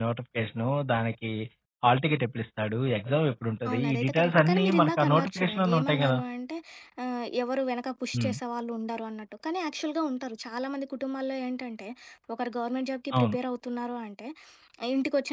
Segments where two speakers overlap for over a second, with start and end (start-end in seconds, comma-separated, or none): 3.7-6.2